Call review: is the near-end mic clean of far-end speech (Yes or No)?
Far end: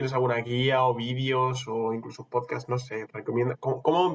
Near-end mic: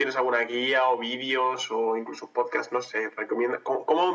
No